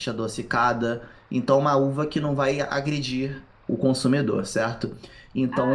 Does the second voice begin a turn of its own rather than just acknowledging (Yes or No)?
Yes